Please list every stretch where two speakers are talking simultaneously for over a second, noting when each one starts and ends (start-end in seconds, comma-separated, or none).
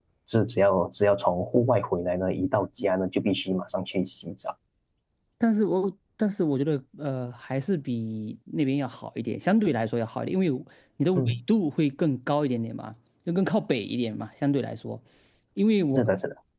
none